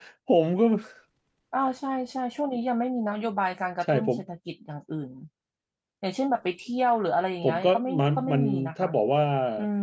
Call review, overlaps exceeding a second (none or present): present